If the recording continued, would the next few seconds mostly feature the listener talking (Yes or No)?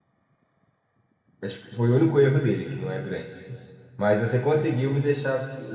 No